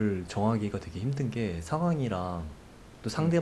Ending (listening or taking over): listening